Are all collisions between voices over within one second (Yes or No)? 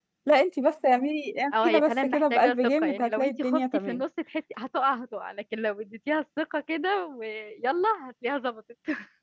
No